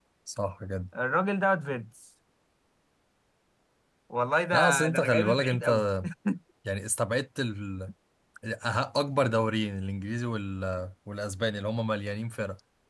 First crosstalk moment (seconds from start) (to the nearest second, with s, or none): 5 s